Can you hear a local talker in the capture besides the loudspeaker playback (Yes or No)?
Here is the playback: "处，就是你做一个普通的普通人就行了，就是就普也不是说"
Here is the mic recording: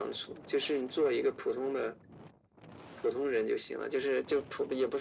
No